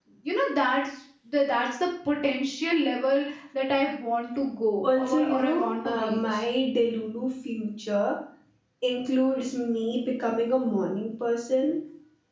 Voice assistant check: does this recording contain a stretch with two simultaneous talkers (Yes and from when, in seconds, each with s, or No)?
Yes, from 4.8 s